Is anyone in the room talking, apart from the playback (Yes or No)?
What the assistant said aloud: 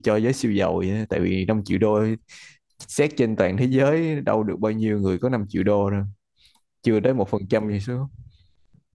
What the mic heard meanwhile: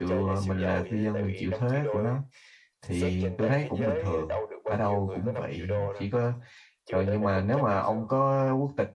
Yes